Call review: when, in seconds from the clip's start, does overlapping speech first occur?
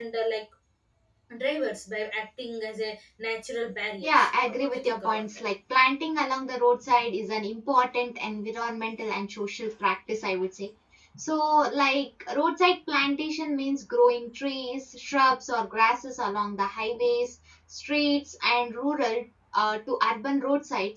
4 s

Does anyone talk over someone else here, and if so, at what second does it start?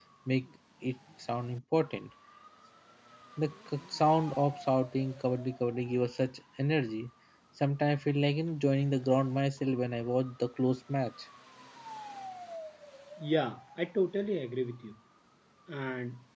none

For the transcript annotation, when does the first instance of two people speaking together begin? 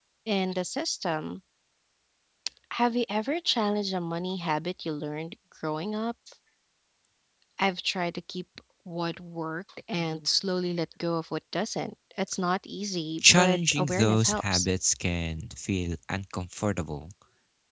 13 s

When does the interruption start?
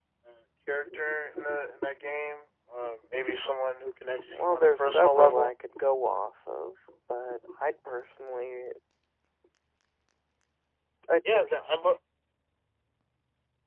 4 s

